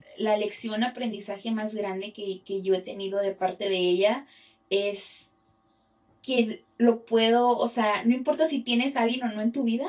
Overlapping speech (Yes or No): No